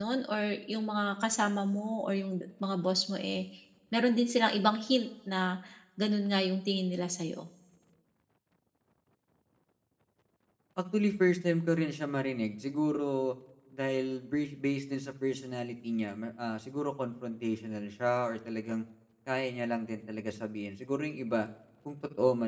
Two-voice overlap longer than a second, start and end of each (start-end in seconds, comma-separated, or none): none